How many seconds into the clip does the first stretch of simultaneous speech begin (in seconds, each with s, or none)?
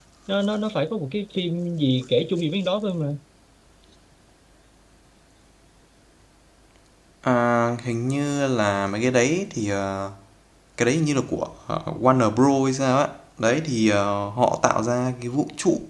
none